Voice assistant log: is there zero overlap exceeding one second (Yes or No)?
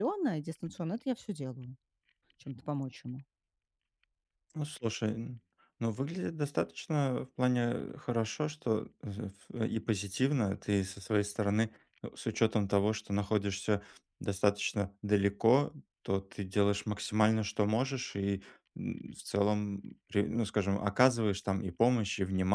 Yes